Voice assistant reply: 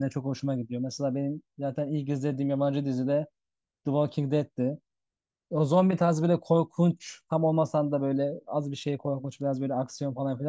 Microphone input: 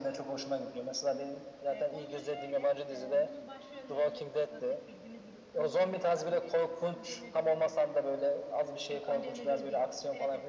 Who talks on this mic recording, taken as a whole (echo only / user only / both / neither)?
both